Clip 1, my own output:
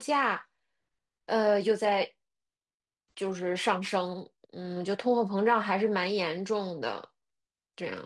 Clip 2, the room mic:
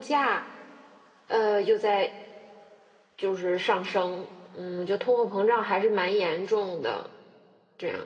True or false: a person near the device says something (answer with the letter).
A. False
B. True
A